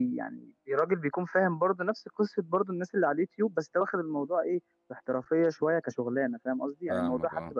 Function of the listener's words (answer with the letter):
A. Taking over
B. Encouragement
B